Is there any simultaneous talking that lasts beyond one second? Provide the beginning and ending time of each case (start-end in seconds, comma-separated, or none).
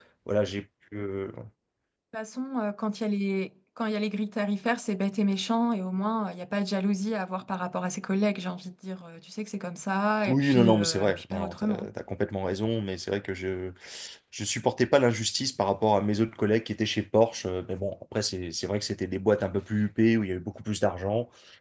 10.3-11.9